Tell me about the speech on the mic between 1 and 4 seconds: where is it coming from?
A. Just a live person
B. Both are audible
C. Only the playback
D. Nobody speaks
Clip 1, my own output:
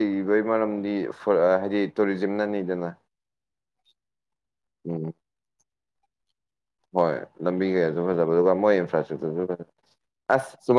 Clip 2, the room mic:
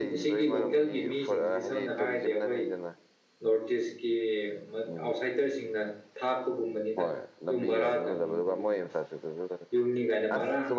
B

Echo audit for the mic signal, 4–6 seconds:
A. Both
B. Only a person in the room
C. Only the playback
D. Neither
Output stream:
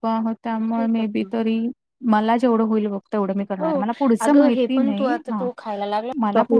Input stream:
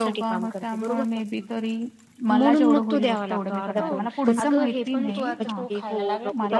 A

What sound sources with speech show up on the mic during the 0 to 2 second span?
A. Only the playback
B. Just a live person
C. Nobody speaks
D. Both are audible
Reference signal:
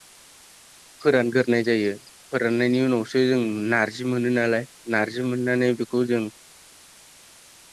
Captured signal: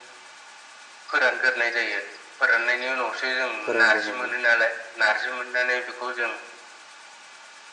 A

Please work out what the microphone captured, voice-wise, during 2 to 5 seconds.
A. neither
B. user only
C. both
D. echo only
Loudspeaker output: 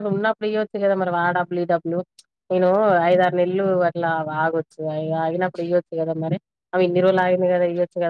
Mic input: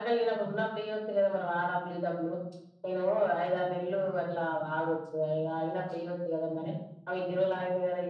D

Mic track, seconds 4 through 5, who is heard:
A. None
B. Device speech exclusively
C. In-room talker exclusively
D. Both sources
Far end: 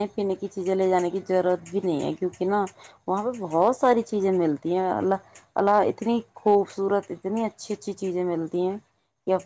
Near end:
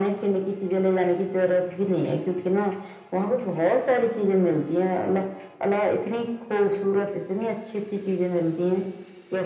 B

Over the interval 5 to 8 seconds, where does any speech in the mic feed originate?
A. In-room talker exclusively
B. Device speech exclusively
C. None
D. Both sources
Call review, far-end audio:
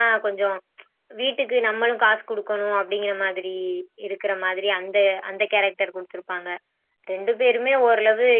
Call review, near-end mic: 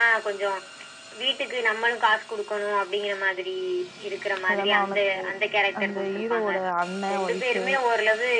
D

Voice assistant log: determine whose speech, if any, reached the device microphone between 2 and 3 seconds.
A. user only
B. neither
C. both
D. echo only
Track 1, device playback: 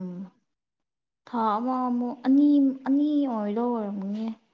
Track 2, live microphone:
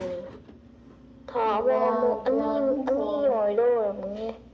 C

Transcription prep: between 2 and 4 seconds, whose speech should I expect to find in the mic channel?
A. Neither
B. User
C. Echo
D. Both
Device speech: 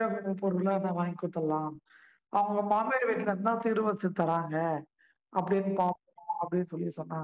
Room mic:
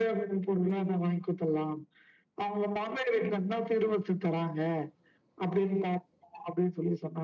C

